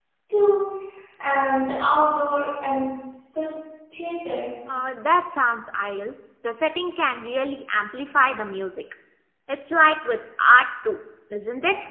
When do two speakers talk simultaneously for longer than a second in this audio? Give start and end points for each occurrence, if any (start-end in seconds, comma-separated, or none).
none